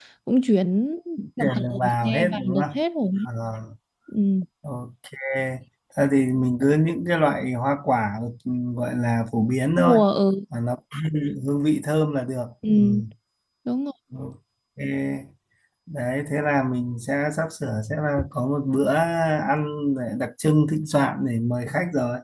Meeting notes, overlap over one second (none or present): present